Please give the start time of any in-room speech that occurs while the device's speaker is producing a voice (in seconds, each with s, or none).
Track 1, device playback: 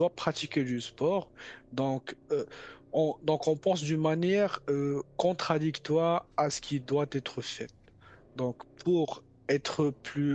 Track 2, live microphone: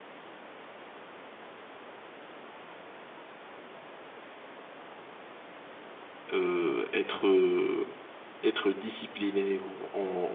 6.3 s